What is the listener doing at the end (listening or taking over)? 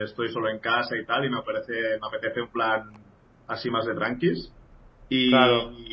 listening